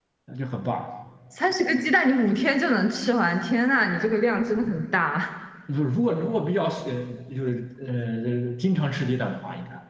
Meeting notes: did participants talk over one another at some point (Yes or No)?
No